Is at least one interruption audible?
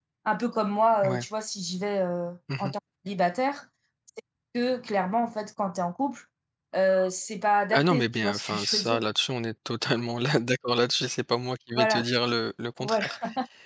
Yes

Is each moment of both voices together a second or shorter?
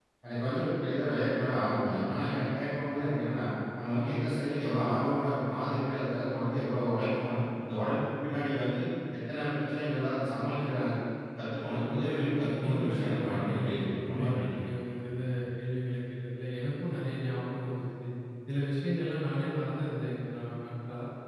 No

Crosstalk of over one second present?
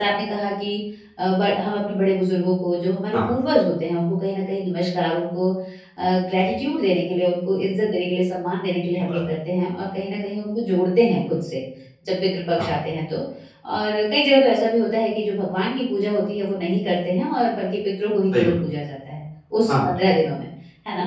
No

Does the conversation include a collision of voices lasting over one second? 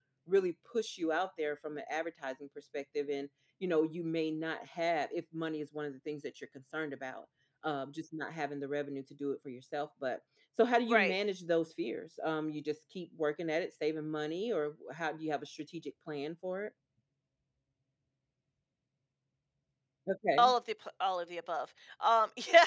No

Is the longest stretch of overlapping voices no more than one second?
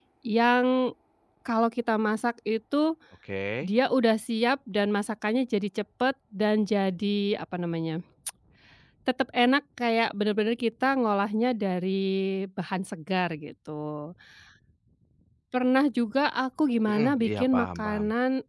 No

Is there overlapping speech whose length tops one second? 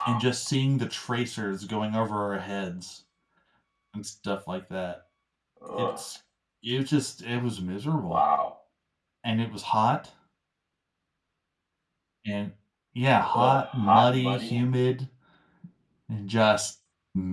Yes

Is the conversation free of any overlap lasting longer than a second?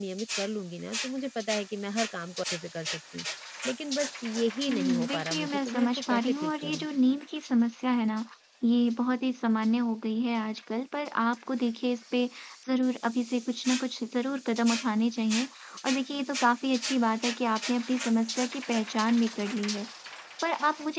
No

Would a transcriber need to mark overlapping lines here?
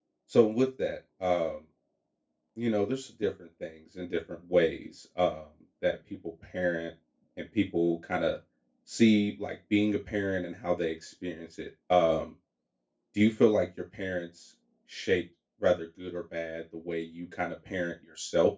No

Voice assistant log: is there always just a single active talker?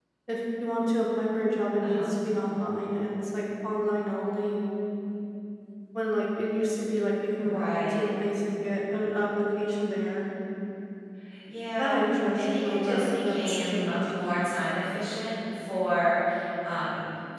No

